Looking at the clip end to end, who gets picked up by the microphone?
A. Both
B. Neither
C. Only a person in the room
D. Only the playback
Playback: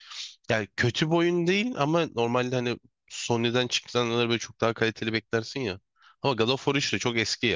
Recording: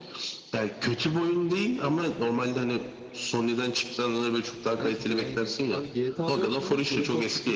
A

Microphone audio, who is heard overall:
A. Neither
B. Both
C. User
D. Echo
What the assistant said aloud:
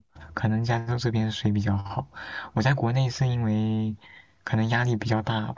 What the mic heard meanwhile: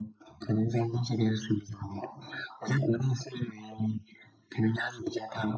D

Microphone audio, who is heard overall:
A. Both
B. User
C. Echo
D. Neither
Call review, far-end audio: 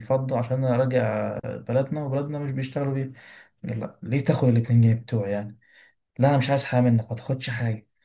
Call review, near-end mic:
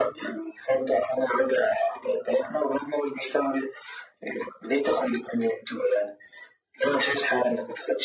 C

